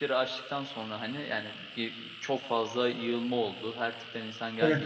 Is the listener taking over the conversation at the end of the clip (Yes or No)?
No